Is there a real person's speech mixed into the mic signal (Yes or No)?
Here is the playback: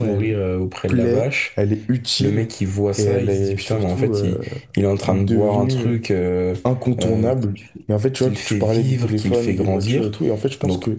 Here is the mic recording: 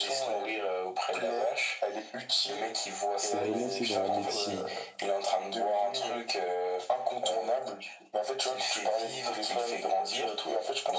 Yes